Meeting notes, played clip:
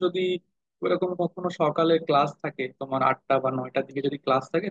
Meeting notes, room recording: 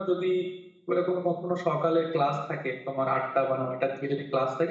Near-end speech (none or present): none